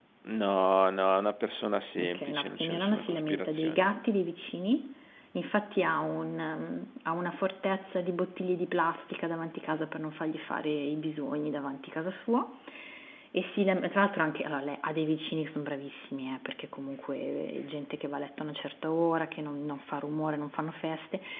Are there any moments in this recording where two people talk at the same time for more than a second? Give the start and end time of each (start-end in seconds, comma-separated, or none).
2.0-3.8